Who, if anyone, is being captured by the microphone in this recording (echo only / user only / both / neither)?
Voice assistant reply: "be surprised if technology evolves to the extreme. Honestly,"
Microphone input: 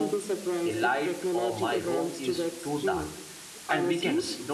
both